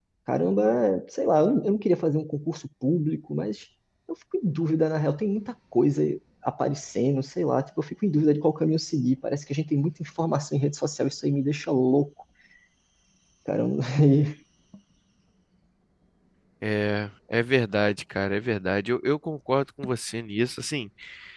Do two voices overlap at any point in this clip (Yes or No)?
No